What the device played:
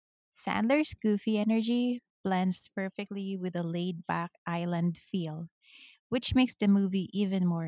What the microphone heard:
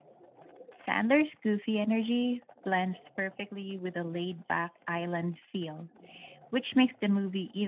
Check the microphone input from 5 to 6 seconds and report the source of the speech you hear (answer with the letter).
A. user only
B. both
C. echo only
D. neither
C